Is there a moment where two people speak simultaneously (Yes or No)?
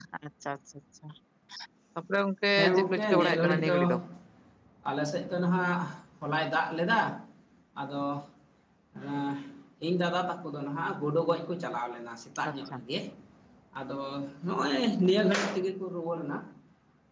Yes